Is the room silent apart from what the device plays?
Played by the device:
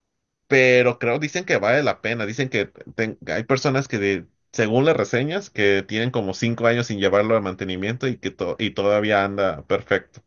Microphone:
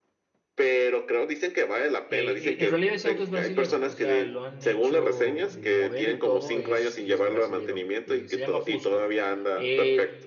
No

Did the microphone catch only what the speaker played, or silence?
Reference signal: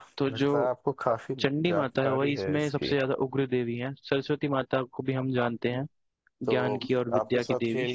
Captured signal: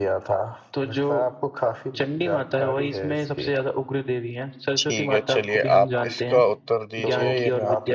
No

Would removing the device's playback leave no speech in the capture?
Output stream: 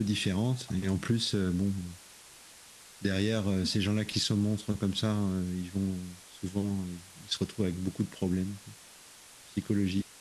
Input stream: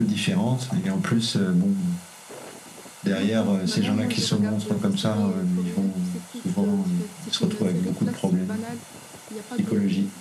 No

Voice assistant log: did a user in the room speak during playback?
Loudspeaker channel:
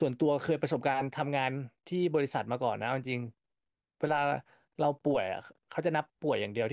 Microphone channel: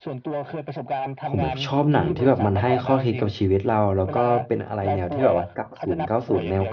Yes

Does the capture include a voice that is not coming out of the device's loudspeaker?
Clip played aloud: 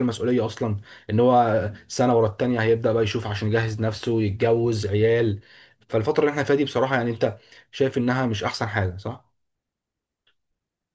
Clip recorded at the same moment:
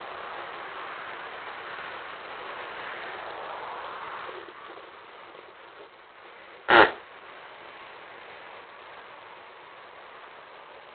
Yes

